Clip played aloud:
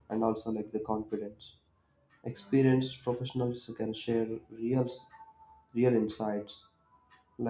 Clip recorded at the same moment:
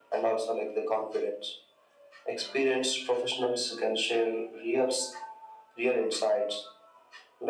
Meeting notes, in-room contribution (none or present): none